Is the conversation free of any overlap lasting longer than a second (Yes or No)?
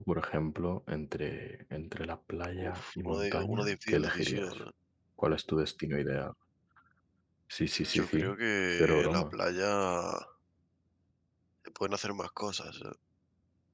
No